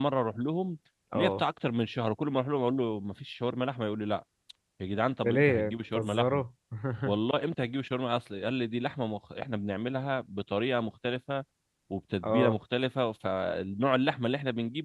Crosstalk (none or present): present